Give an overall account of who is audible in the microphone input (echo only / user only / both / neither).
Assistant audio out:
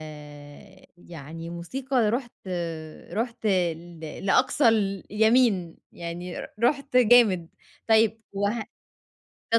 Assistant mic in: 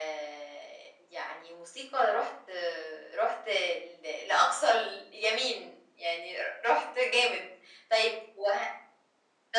echo only